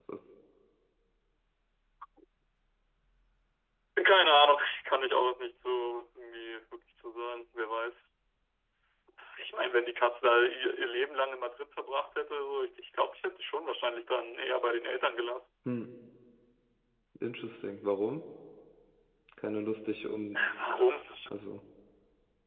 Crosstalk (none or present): none